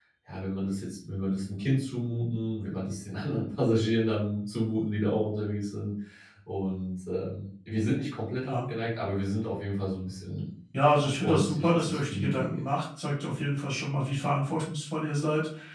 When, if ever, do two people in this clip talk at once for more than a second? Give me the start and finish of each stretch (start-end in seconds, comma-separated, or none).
10.9-12.6